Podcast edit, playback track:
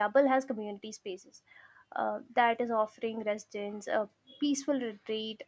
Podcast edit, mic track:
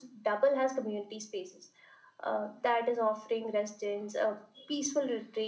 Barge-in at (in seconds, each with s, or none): none